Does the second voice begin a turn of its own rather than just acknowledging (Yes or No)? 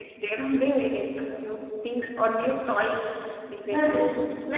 Yes